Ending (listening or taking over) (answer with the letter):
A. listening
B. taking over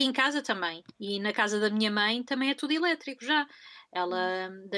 A